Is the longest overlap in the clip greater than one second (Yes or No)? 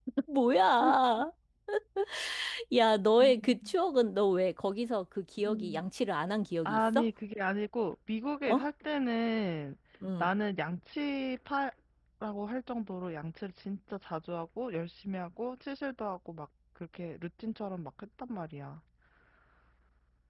No